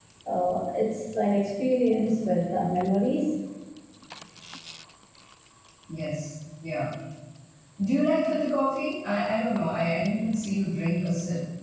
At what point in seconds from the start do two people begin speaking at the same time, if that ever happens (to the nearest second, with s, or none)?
none